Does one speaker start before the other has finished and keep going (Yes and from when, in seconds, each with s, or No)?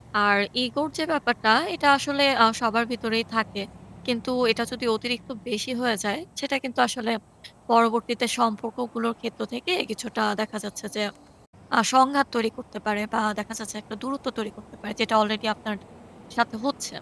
No